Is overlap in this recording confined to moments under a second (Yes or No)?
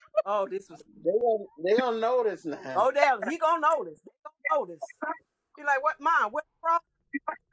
Yes